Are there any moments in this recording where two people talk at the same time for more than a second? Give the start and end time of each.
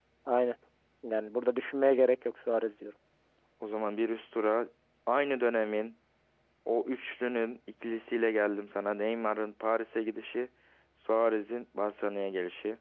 none

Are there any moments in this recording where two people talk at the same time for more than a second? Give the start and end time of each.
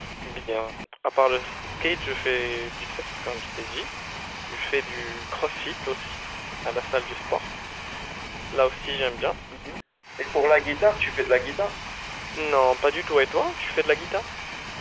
none

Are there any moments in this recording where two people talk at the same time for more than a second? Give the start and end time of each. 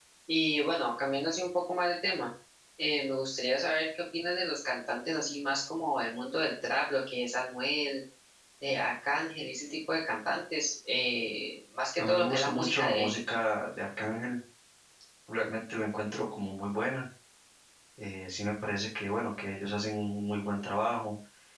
12.0-13.3

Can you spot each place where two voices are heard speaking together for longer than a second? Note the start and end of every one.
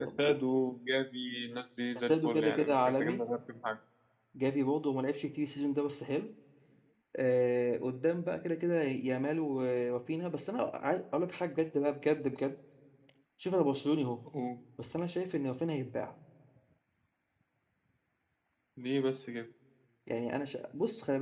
1.9-3.2

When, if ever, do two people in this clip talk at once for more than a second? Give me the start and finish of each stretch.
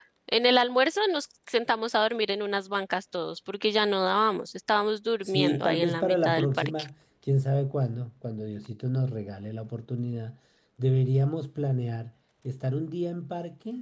5.2-6.9

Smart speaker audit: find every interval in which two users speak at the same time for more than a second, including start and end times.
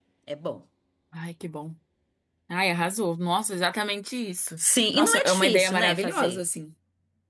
4.6-6.4

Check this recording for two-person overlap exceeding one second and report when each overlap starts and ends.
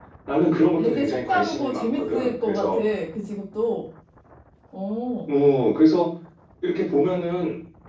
0.8-2.8

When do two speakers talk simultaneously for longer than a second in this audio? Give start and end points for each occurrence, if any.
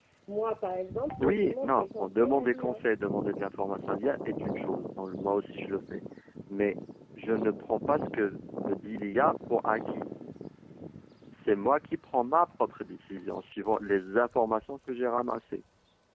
1.2-2.8

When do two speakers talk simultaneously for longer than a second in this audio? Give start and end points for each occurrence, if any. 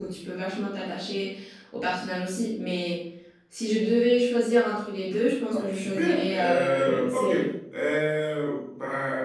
5.5-7.3

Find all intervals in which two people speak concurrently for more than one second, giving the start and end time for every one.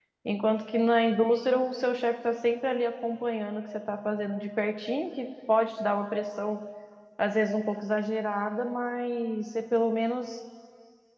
none

